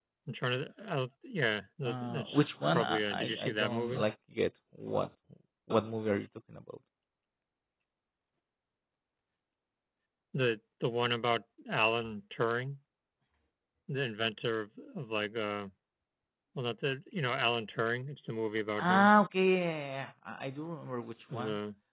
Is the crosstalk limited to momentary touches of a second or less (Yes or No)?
No